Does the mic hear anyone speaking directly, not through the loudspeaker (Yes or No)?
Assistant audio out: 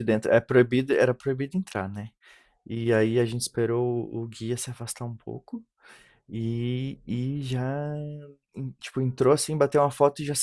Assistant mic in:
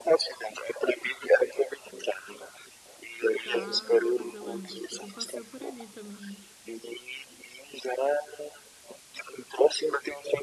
Yes